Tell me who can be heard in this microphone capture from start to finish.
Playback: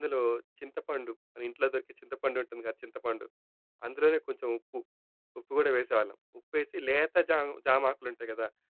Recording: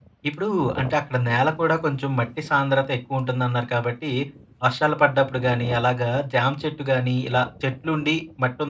user only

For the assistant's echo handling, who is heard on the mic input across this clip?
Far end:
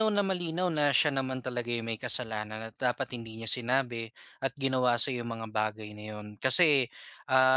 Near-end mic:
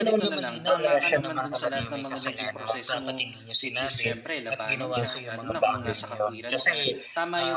both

